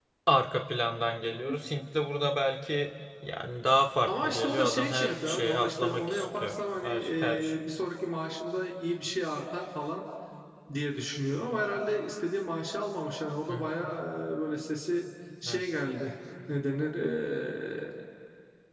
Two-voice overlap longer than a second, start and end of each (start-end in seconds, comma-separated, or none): 4.1-7.6